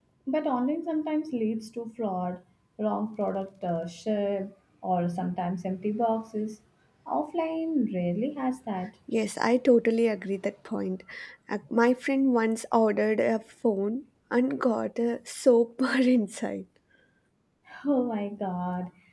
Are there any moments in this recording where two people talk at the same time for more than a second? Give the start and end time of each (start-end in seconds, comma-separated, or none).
none